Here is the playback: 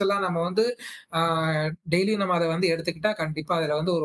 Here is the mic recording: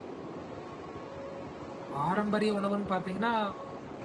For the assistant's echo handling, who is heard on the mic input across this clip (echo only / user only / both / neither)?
user only